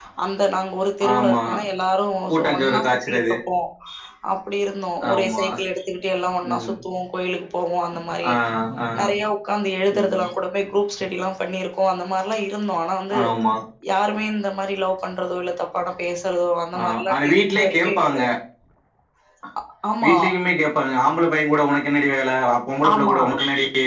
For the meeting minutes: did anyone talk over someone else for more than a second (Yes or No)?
Yes